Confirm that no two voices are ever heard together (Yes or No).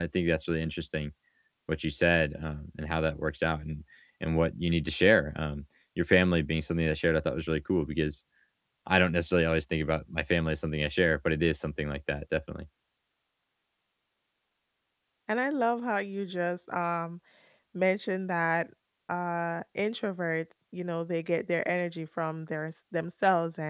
Yes